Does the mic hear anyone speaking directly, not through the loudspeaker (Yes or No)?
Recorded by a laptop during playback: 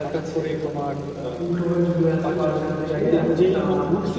Yes